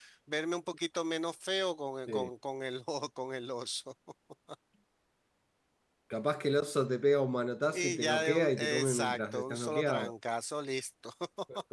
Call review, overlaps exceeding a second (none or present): present